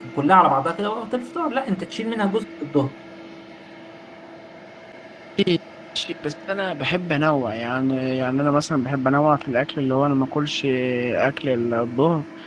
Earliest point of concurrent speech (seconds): none

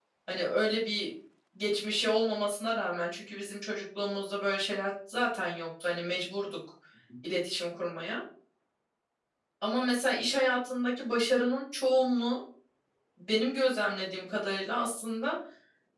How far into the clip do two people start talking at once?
none

